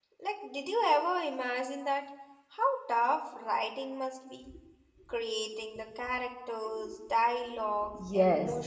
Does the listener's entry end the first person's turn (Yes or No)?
Yes